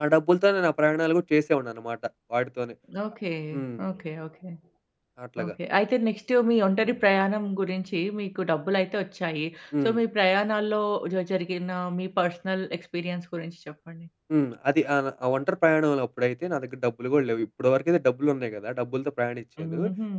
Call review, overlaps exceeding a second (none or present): none